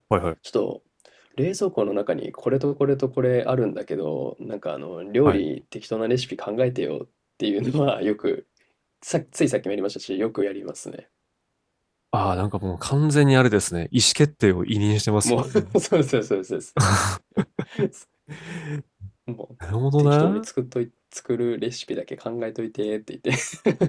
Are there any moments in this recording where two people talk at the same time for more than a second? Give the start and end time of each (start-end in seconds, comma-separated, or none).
none